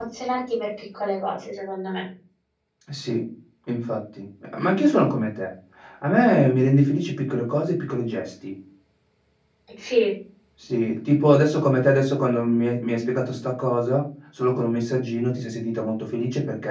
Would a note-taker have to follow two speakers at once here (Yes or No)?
No